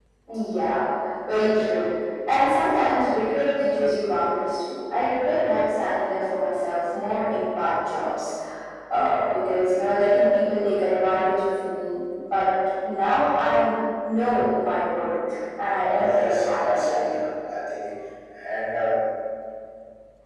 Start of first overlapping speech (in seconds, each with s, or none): 15.8 s